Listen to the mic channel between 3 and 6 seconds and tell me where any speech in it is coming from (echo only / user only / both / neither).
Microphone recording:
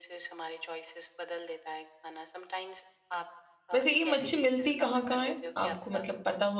both